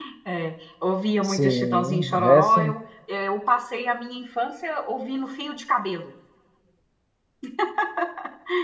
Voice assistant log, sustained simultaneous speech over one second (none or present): present